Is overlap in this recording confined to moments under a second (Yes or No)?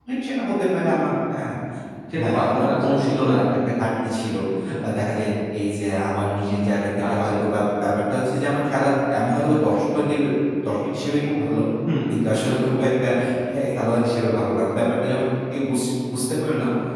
No